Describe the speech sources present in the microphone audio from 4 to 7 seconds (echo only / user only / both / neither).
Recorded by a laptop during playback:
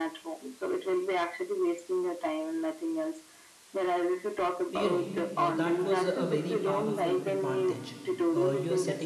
both